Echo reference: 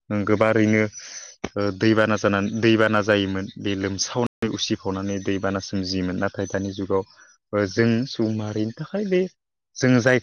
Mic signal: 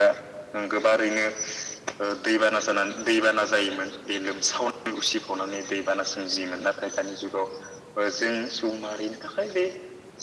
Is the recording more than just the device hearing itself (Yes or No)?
No